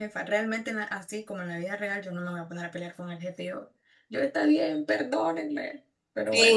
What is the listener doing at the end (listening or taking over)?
taking over